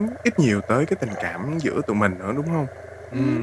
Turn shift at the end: Yes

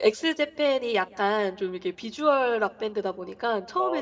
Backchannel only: Yes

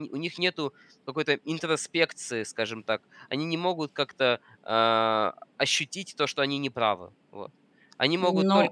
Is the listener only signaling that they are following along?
No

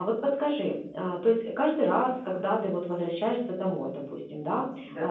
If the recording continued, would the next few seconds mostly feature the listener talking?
No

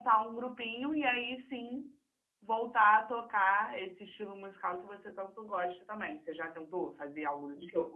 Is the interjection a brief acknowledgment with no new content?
No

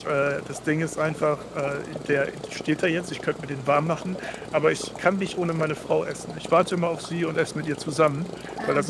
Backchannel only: Yes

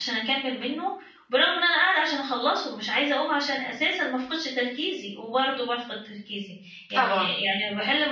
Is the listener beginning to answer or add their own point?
No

